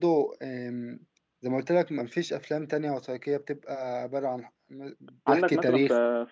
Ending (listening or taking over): taking over